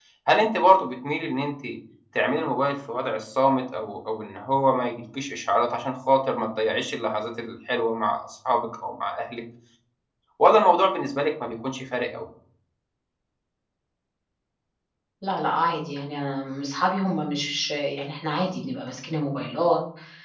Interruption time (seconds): none

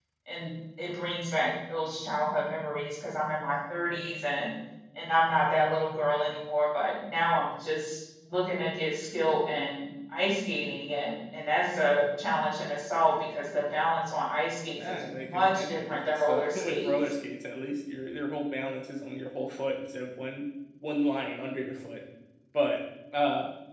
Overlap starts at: 14.8 s

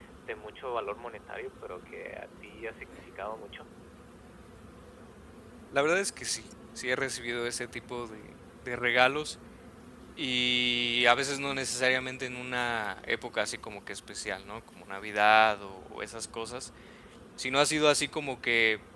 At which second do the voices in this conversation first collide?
none

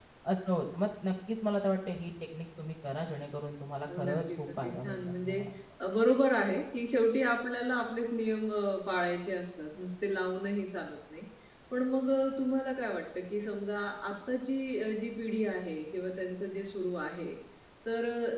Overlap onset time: 3.9 s

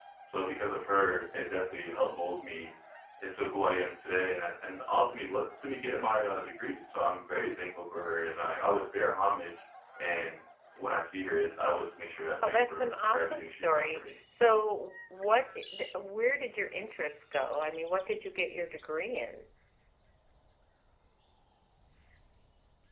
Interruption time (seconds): 12.4 s

